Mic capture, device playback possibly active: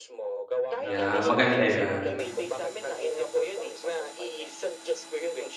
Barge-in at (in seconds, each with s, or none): 0.8 s